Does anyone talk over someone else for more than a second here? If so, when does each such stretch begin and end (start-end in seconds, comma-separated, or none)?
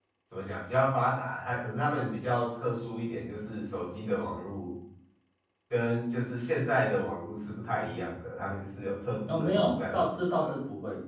9.3-10.6